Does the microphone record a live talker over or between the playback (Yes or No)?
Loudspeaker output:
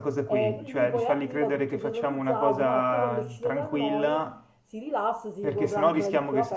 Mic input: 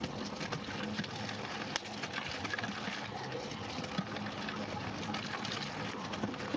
No